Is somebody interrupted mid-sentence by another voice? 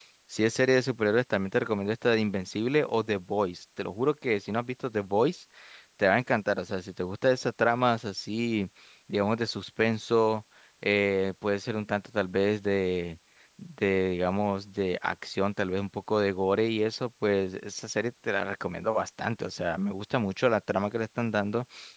No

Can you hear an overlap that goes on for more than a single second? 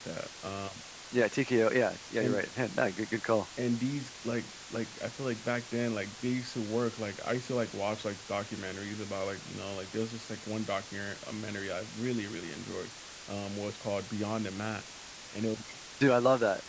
No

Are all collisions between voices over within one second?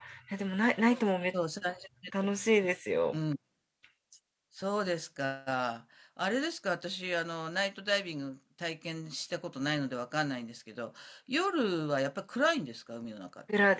Yes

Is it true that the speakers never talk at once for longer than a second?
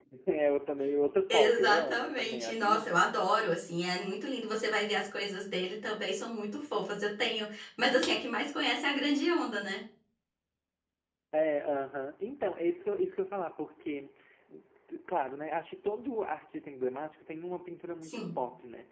No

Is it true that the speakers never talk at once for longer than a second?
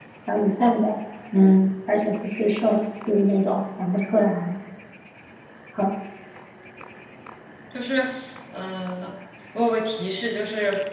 Yes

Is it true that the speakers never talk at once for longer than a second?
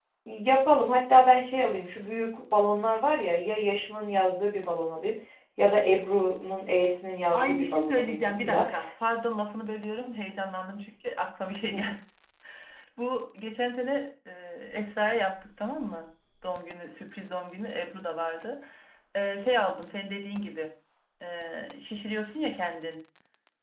No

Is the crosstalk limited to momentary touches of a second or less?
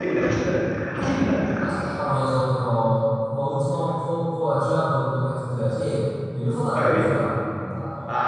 Yes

